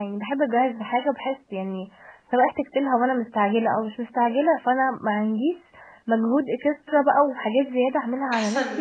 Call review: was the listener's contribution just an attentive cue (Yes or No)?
No